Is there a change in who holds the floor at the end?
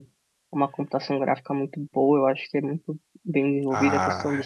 Yes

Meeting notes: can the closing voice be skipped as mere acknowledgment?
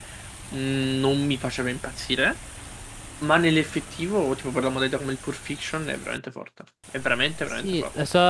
No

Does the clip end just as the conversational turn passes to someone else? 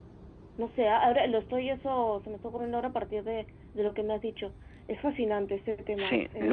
Yes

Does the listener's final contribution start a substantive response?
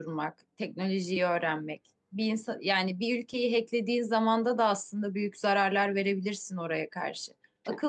No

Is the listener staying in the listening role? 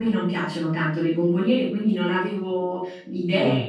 Yes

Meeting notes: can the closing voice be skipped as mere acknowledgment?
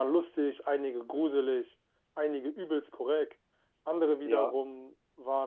Yes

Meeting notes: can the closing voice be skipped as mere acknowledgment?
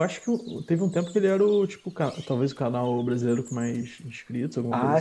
No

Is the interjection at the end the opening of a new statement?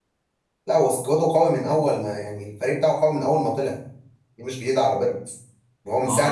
Yes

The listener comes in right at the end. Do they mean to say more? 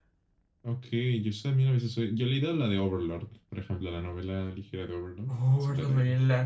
Yes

